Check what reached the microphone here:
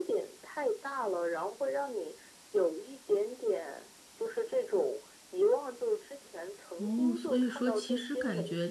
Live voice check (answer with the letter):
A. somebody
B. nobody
A